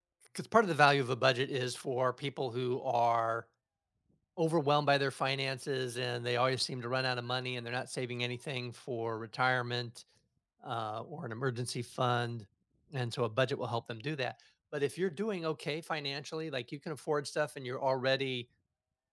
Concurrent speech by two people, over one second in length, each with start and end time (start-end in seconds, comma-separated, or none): none